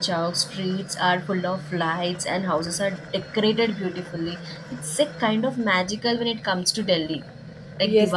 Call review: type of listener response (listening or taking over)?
taking over